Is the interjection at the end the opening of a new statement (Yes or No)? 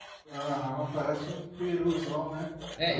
Yes